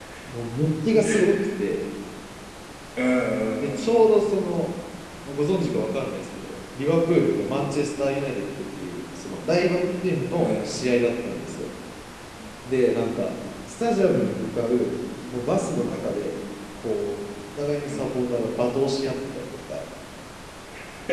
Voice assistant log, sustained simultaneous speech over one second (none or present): none